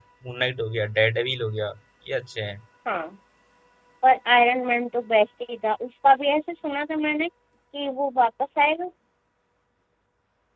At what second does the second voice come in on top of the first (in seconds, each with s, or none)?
none